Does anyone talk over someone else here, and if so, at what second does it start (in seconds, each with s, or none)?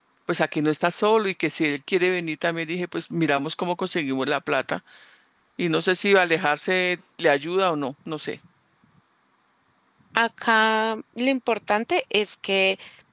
none